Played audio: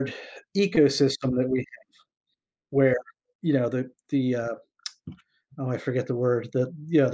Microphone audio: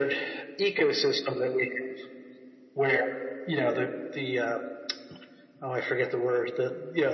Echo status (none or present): present